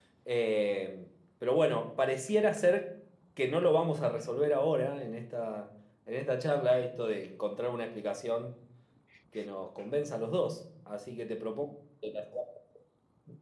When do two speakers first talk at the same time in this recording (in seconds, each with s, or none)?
none